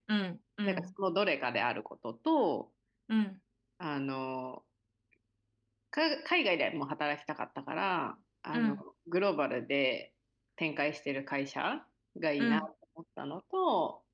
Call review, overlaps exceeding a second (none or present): none